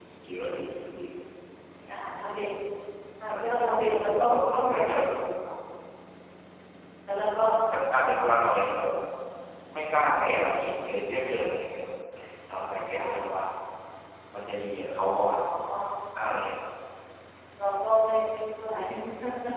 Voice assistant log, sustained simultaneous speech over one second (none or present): present